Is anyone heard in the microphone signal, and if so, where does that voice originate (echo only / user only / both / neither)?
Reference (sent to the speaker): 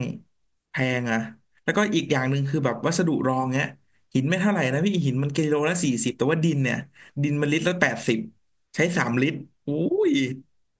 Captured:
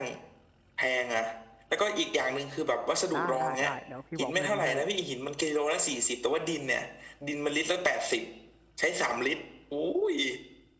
both